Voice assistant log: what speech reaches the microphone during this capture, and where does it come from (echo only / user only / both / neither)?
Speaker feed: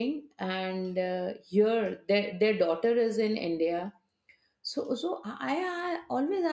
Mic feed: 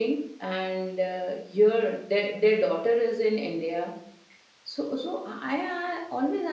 echo only